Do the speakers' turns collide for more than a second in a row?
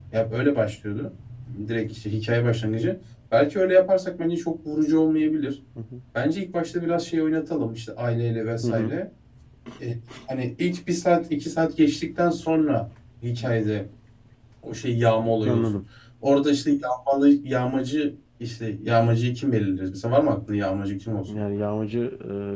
No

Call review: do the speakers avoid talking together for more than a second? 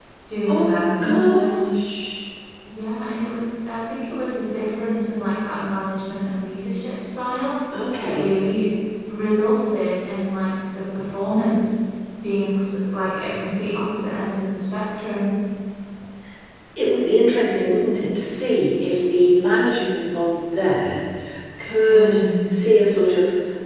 No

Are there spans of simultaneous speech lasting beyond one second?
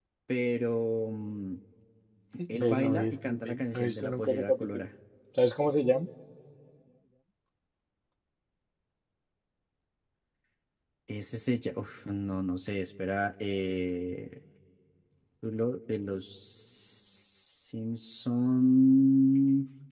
Yes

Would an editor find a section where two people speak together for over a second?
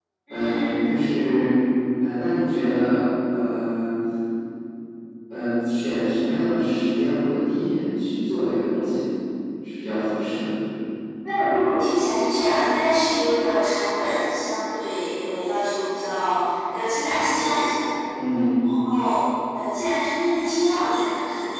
No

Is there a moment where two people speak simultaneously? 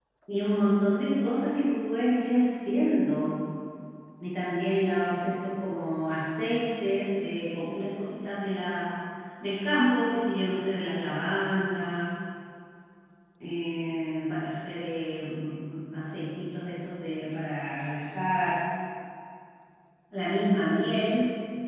No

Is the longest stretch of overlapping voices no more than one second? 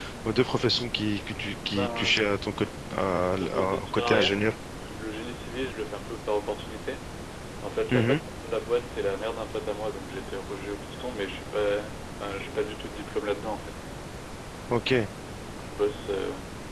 No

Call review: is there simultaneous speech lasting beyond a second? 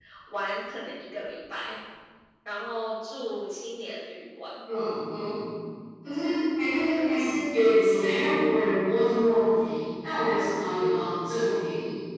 No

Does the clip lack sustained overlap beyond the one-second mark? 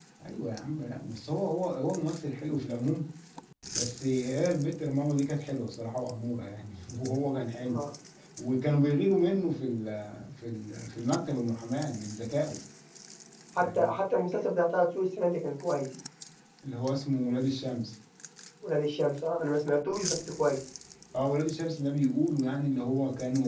Yes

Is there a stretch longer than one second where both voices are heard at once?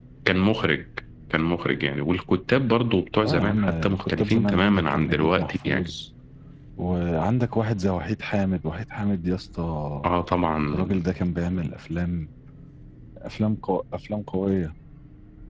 Yes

